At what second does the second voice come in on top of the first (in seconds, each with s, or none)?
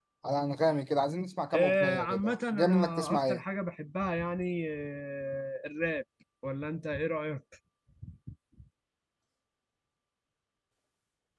1.5 s